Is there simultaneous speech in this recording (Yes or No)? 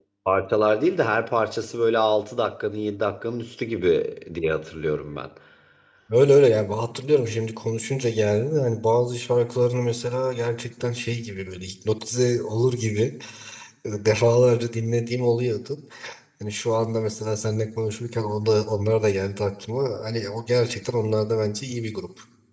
No